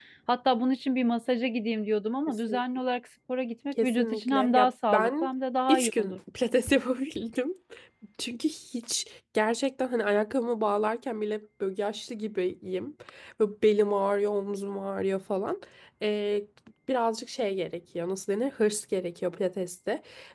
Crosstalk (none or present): present